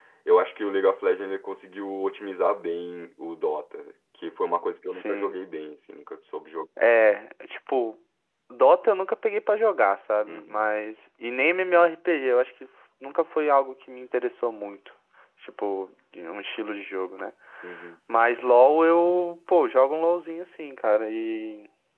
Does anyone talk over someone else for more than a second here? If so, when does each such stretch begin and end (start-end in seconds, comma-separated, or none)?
none